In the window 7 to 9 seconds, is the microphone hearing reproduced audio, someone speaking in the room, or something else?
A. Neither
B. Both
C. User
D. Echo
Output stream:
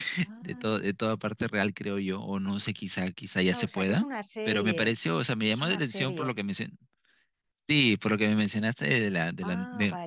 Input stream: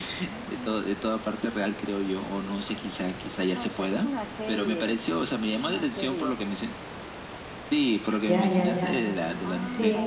B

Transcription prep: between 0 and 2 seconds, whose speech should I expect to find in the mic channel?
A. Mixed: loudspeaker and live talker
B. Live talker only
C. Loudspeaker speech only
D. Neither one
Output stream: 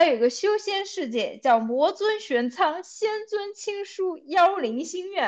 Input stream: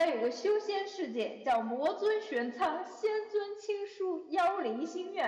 C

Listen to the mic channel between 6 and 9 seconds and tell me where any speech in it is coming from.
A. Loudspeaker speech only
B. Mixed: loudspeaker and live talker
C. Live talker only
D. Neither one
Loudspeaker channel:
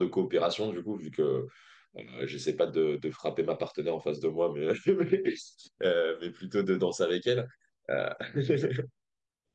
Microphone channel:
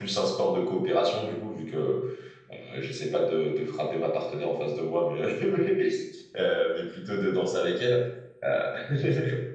A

